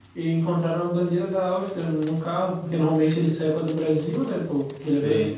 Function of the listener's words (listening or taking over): listening